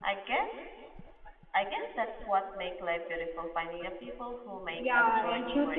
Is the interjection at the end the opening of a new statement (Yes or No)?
Yes